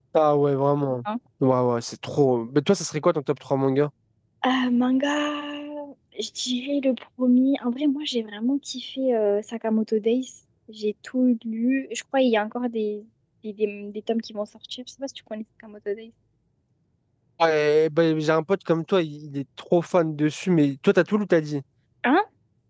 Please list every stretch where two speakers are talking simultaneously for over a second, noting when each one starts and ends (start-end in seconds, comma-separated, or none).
none